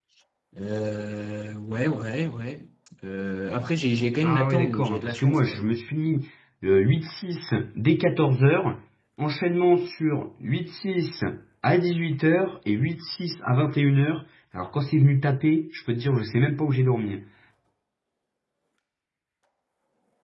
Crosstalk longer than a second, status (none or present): present